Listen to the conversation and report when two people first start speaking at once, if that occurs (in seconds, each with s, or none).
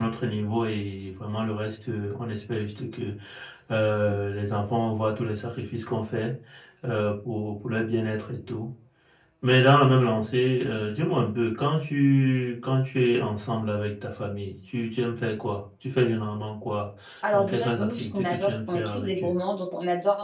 17.2 s